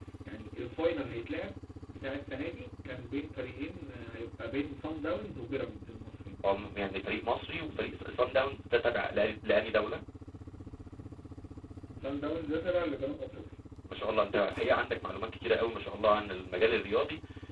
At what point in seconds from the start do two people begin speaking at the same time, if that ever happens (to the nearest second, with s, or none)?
none